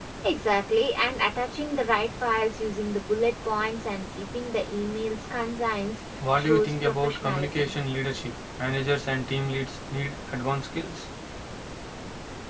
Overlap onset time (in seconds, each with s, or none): 6.2 s